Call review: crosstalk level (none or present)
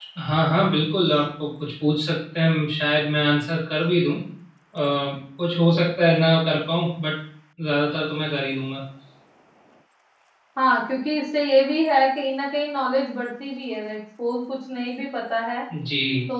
none